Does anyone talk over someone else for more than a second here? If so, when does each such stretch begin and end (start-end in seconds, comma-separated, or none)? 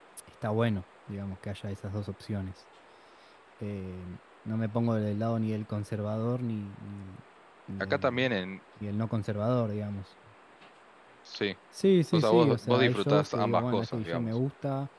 12.1-14.3